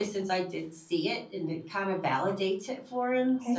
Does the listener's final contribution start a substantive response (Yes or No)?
Yes